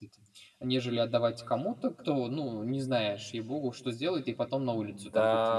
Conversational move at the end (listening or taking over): taking over